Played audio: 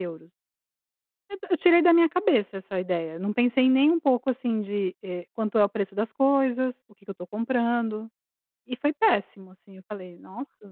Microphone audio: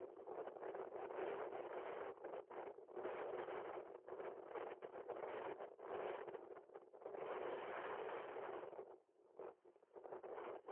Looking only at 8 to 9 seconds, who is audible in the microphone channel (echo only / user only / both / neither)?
neither